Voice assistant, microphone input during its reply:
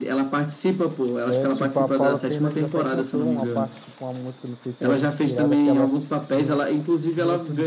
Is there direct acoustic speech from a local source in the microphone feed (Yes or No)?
Yes